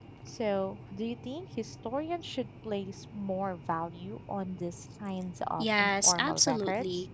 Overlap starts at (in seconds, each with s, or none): 5.6 s